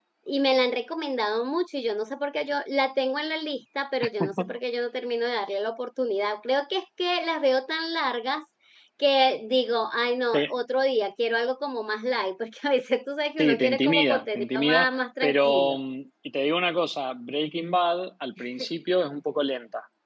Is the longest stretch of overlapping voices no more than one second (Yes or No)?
No